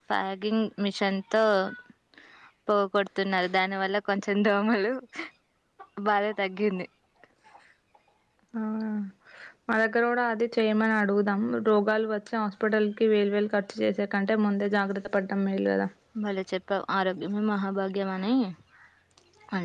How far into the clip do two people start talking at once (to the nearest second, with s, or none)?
none